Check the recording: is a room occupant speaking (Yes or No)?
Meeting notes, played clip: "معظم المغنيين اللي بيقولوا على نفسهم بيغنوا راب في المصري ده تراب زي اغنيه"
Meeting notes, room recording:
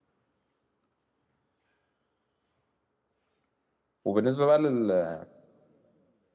Yes